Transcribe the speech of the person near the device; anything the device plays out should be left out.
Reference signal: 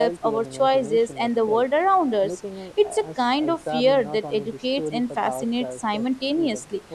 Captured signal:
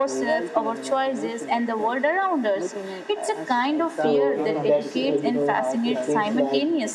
so even that's uh, you know it feels like

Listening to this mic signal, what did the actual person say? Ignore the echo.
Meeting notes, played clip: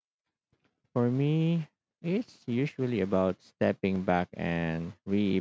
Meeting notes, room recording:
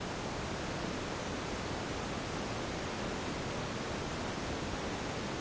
none

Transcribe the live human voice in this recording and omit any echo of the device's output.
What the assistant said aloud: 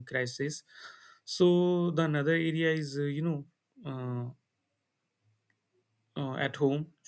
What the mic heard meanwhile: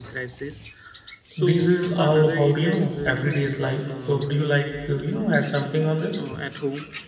this is all about you know everyday's life. Uh, Would you like uh, you know add something on this?

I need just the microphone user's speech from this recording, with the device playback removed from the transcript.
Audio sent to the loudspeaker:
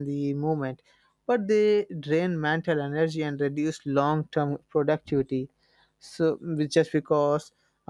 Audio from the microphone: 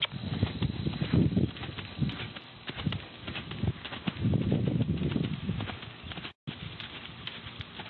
none

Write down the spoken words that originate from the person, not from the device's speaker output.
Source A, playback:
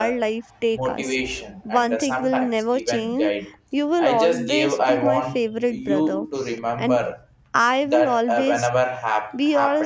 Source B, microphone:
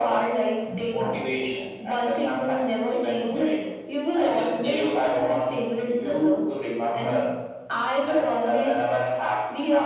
Mm.

